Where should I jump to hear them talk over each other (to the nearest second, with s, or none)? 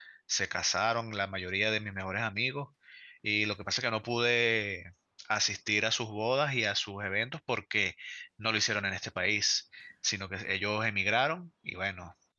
none